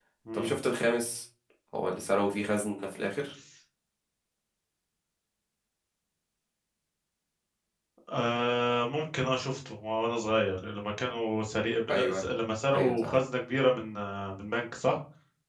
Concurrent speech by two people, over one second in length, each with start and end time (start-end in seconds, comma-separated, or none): none